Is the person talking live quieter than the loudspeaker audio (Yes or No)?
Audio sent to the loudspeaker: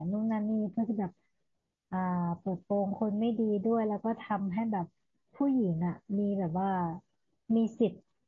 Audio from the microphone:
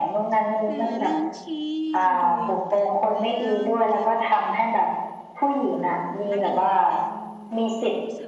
Yes